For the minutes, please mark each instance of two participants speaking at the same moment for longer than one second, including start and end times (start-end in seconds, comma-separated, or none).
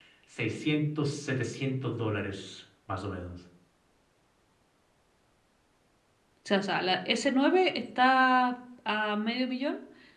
none